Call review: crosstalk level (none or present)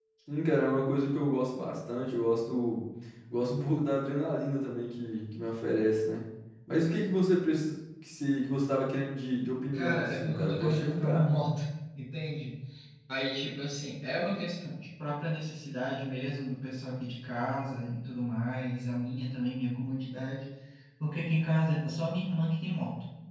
present